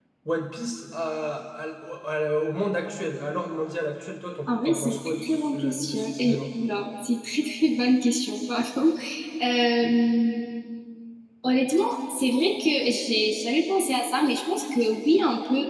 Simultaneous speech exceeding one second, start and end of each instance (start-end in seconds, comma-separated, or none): 4.5-6.4